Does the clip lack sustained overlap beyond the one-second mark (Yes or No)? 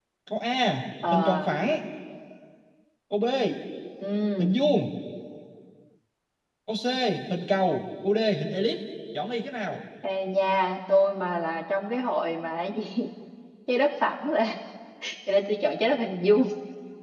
Yes